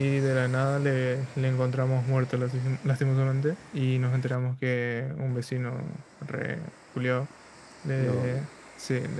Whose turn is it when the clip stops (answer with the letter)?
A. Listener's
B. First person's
B